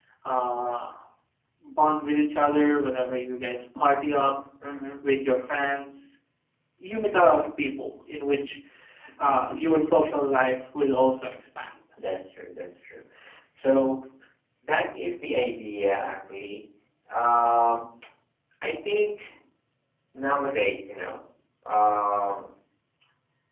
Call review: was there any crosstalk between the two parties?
No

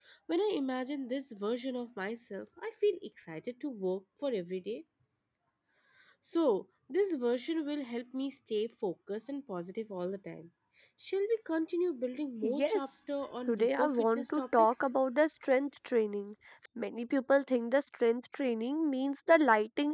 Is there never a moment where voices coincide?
No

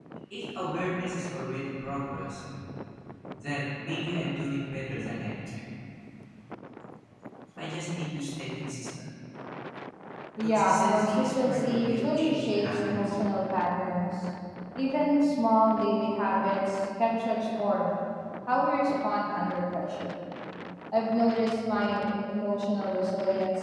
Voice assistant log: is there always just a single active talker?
No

